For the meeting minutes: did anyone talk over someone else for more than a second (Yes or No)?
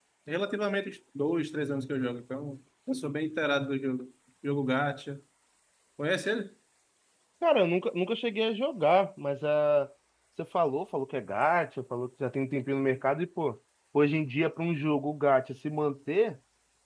No